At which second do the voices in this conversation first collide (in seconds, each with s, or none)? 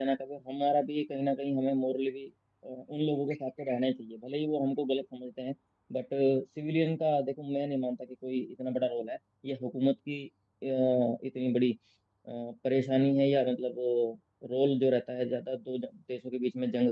none